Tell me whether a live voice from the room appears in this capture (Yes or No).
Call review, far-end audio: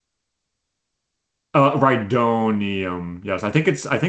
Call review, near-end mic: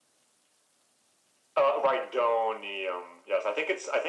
No